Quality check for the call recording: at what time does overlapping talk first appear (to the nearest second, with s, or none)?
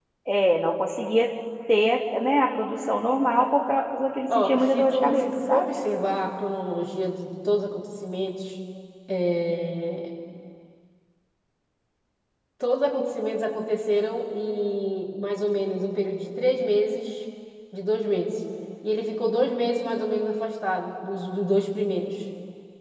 4 s